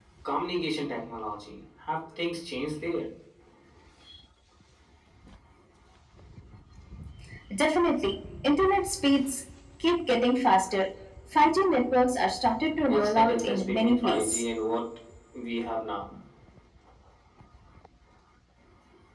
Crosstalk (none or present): present